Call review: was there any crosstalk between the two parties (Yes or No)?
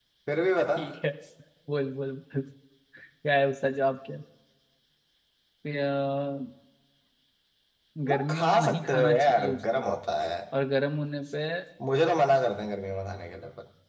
Yes